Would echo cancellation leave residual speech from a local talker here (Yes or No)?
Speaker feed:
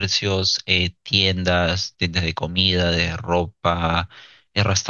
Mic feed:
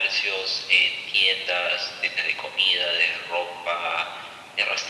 No